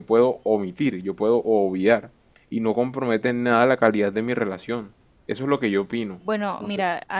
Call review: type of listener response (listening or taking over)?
taking over